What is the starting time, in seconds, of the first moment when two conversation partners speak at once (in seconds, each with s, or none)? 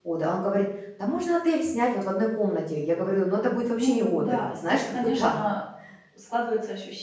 3.6 s